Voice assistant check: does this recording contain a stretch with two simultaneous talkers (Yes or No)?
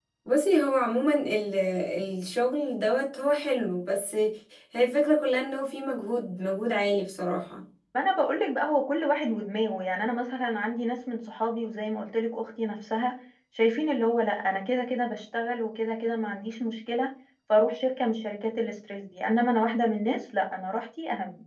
No